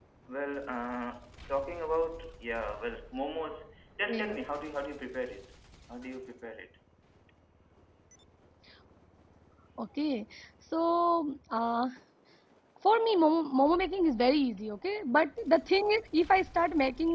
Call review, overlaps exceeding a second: none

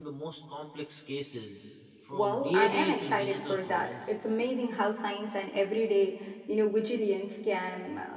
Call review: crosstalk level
present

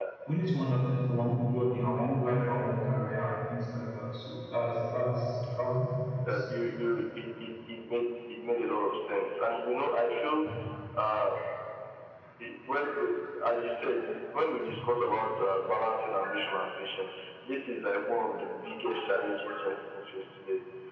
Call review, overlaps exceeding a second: none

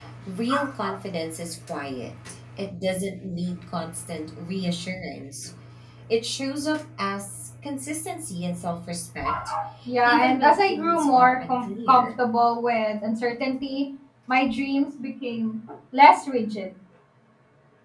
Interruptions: present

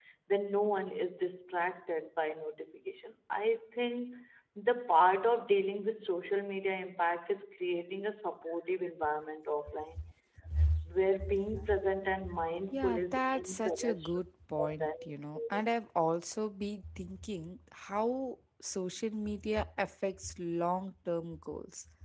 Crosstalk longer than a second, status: present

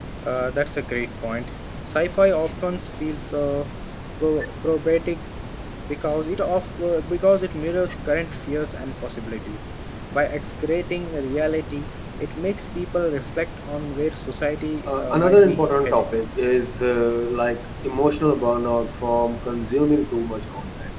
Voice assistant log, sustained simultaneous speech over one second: present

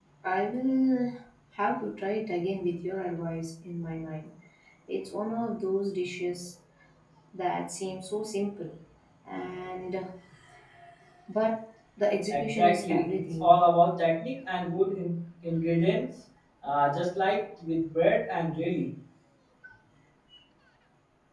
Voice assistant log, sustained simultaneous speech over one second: present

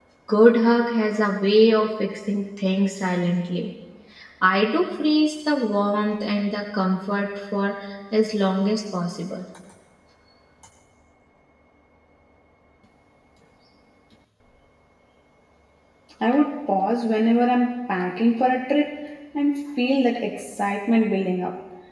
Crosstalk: none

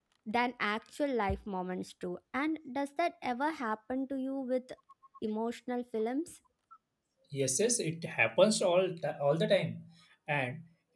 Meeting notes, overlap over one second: none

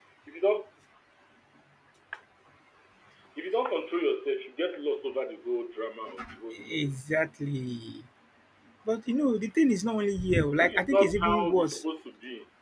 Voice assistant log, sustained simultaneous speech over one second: present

